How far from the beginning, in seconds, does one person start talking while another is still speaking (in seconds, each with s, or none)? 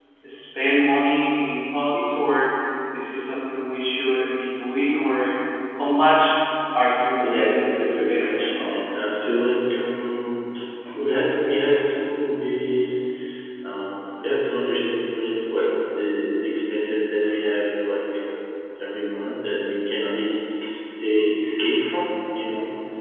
7.1 s